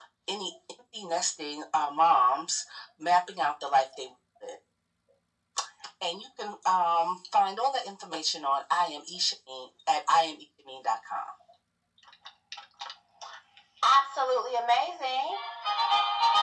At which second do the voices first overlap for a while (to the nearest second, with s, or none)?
none